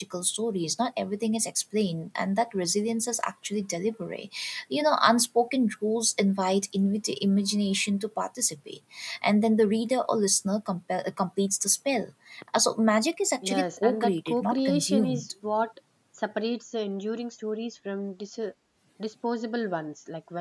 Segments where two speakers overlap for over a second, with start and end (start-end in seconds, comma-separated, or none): 13.4-15.3